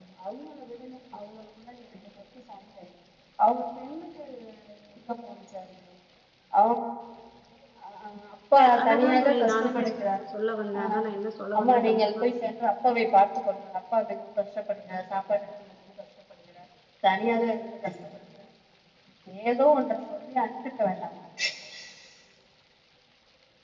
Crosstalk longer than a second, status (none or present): present